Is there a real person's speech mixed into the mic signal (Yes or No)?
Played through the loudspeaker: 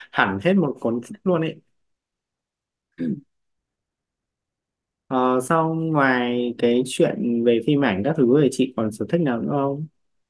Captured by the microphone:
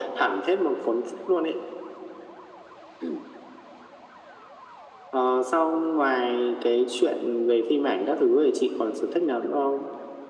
No